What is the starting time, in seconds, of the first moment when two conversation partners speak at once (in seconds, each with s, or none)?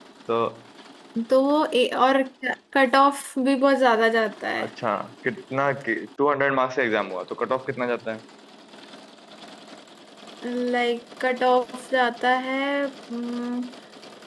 none